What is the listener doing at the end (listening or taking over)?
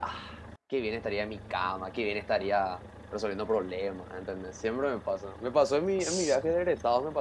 listening